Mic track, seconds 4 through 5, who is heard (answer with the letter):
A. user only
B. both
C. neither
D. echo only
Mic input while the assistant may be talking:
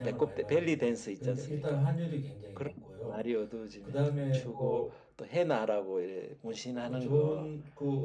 B